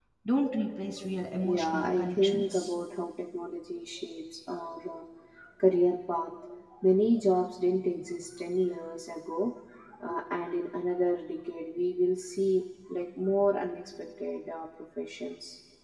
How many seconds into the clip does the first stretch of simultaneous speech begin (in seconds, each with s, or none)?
1.4 s